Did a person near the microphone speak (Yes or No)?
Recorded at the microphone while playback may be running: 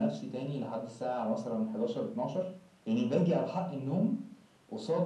No